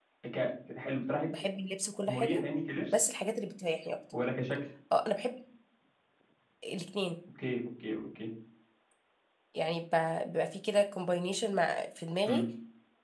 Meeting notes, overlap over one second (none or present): none